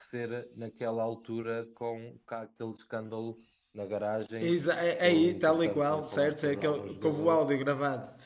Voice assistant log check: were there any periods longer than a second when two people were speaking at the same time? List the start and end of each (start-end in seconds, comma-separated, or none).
5.0-7.4